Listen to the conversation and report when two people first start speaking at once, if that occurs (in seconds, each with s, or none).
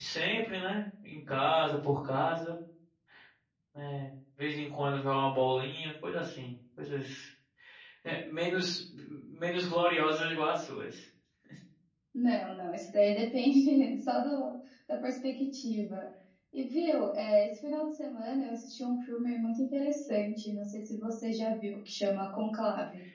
none